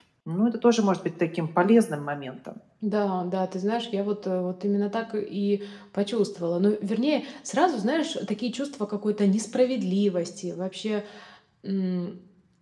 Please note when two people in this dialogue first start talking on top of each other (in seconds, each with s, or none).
none